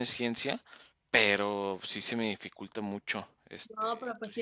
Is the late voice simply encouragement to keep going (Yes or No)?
No